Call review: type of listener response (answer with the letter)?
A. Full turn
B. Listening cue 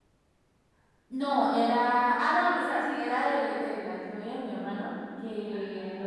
B